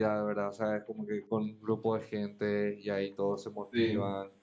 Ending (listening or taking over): listening